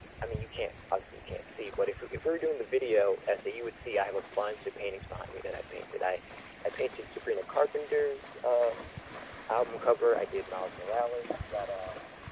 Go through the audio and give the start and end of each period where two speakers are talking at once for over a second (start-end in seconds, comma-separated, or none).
none